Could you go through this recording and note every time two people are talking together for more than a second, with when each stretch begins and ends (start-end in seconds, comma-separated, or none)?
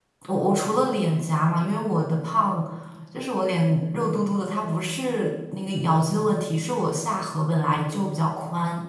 none